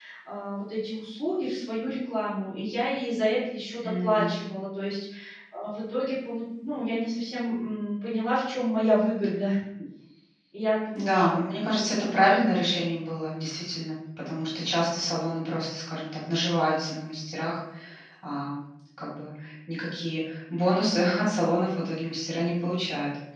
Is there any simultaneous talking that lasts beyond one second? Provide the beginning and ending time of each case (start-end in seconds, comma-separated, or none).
none